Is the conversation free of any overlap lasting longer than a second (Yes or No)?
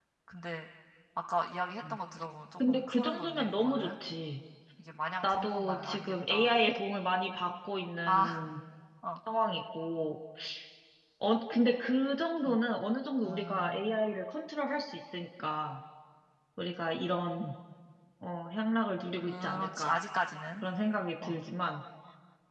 No